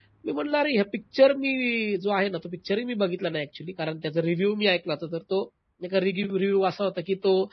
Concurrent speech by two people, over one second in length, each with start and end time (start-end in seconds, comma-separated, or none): none